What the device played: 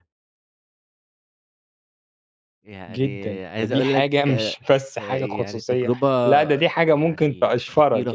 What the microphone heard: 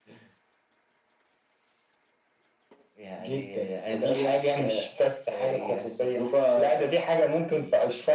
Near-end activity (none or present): none